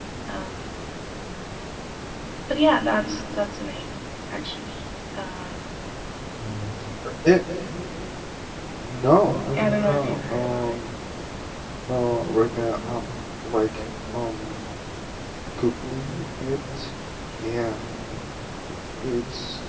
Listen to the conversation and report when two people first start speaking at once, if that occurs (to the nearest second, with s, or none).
10 s